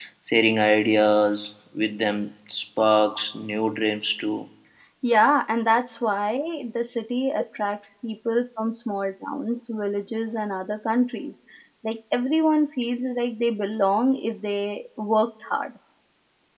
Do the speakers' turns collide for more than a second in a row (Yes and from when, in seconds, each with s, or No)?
No